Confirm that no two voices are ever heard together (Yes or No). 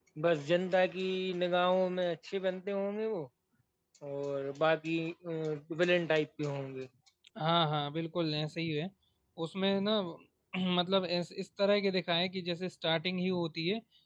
Yes